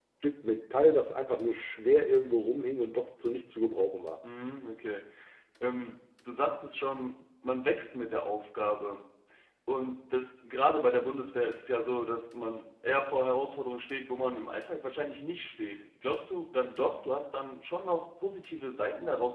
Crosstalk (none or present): none